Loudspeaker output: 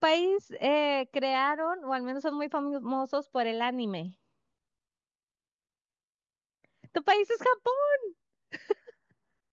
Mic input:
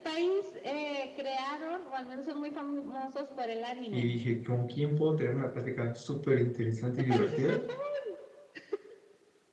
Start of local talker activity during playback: 3.9 s

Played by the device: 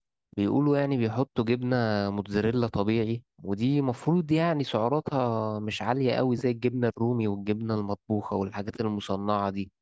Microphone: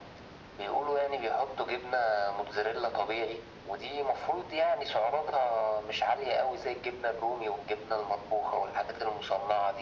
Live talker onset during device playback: none

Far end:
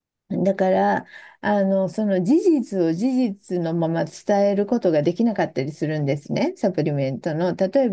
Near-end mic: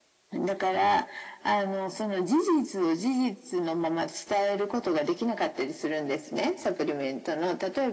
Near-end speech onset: none

